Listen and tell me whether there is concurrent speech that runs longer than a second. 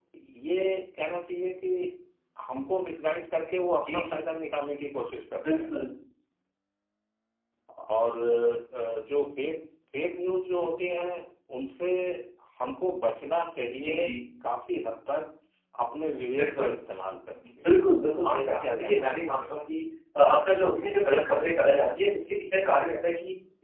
Yes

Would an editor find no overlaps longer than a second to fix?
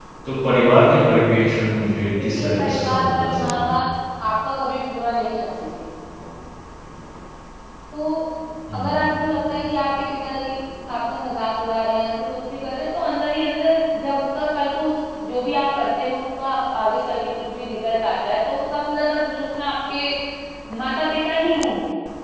No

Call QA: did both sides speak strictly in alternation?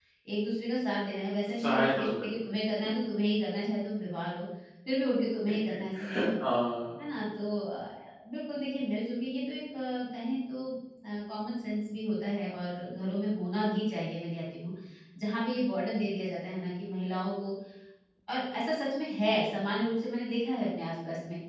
No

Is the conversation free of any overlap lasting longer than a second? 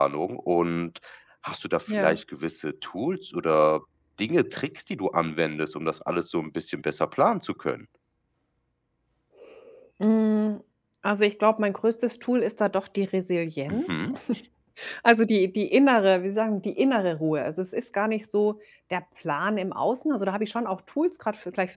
Yes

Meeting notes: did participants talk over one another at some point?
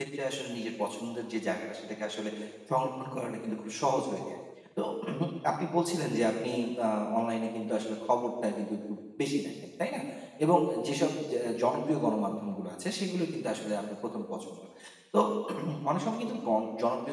No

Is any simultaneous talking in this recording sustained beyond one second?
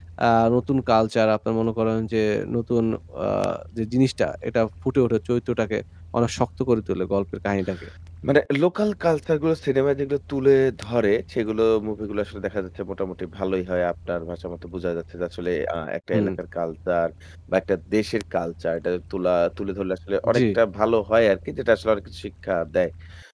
No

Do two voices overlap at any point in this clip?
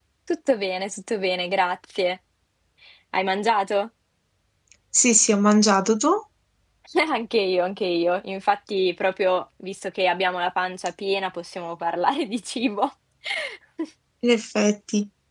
No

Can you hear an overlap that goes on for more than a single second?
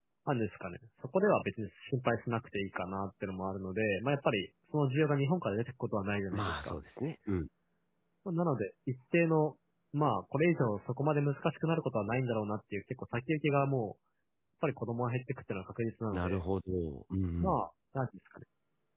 No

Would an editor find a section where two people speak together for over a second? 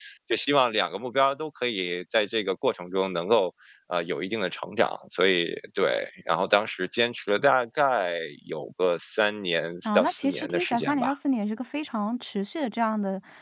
Yes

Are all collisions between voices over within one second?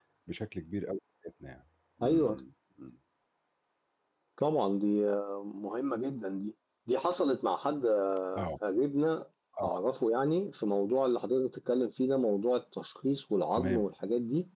Yes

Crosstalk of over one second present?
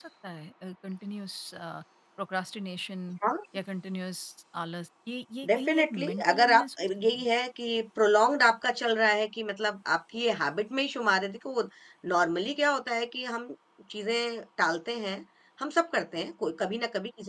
Yes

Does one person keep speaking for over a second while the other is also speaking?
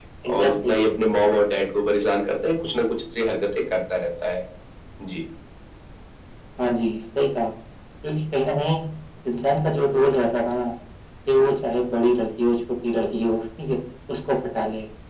No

